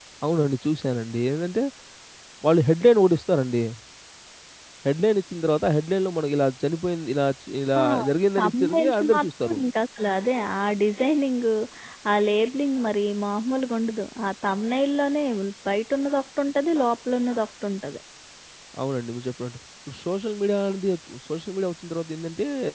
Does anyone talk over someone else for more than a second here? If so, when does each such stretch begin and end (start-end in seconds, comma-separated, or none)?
8.4-9.6